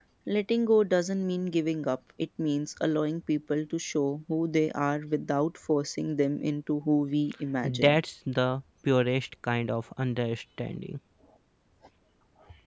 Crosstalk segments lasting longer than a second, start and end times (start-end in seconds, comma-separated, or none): none